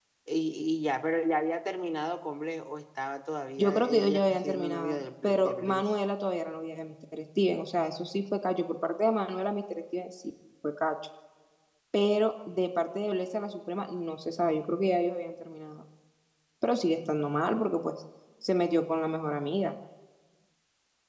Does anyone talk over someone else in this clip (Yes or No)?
Yes